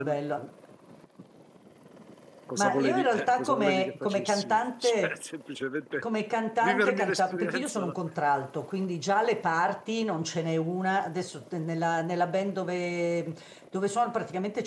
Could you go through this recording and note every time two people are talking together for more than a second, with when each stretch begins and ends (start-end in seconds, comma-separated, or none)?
2.6-5.2, 6.6-7.9